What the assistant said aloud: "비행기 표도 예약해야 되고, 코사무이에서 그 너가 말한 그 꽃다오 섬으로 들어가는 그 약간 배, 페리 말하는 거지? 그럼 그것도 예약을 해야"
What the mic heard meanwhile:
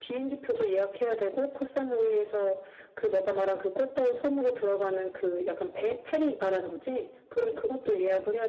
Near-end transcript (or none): none